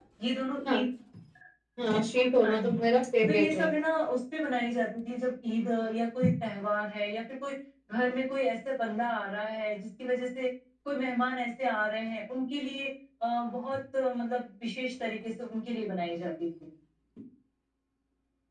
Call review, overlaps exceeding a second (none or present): none